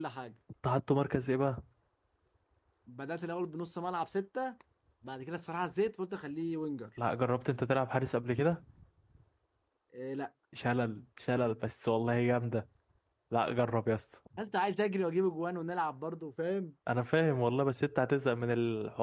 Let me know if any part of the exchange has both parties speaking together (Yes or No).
No